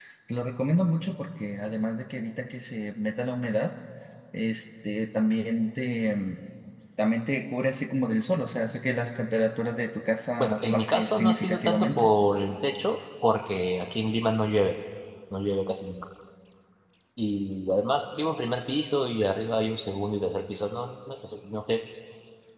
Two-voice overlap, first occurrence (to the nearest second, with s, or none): 10 s